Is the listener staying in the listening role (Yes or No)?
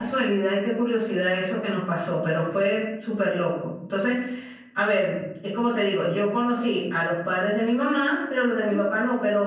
Yes